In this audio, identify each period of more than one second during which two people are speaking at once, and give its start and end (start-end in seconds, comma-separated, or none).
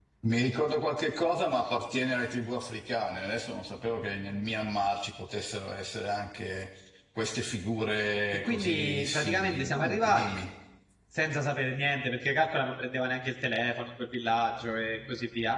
8.4-10.3